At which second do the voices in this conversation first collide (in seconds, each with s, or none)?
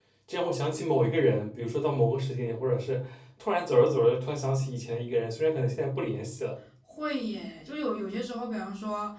none